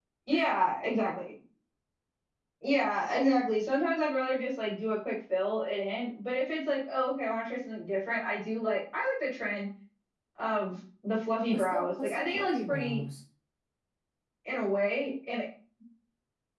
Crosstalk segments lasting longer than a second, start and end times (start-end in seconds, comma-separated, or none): 11.5-13.0